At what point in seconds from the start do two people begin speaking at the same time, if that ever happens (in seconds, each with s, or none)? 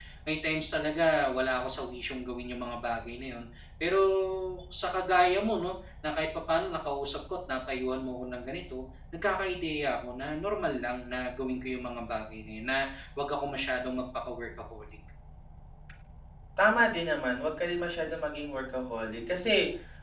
none